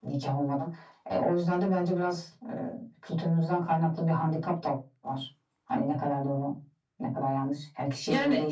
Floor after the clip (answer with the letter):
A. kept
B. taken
B